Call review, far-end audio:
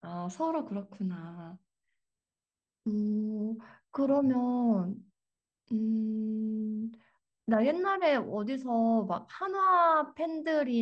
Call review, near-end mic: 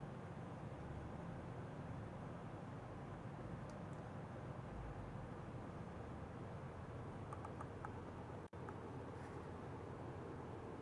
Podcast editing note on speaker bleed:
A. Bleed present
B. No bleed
B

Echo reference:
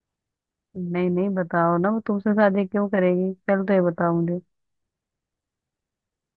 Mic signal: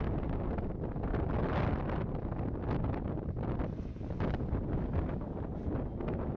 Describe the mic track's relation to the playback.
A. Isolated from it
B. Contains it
A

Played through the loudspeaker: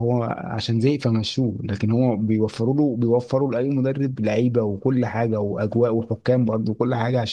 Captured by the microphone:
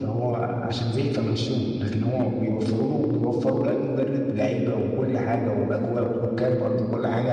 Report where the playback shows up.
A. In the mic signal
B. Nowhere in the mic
A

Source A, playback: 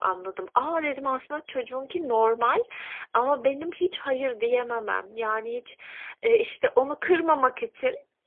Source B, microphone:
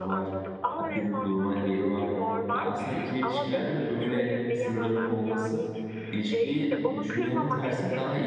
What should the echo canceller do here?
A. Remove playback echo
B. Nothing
A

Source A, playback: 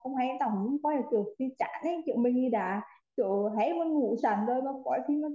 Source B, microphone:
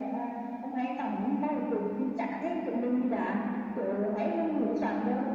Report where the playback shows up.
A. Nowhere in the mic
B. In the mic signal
B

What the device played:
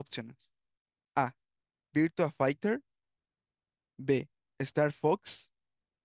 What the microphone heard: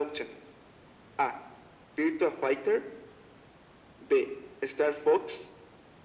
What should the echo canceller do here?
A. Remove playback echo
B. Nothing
A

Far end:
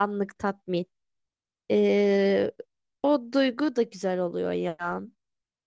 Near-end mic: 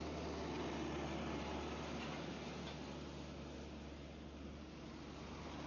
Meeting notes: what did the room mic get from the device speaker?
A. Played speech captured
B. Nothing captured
B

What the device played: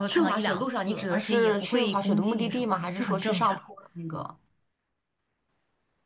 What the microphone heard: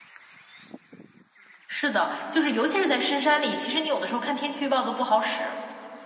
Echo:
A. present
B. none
B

